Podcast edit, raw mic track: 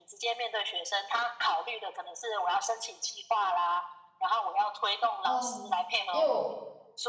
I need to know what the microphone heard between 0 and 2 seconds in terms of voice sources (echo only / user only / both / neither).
echo only